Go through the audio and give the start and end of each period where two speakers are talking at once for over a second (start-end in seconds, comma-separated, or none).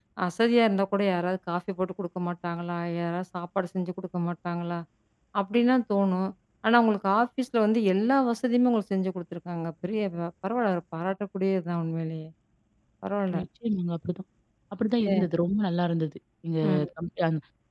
none